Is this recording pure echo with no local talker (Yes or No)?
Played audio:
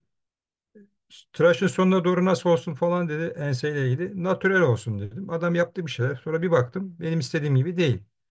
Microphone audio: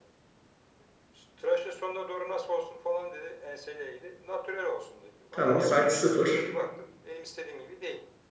No